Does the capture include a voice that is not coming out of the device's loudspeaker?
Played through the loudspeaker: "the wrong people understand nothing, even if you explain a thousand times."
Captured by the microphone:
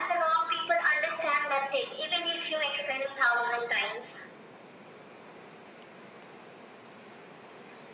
No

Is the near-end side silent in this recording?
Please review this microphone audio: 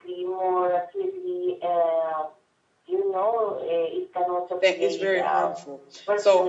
No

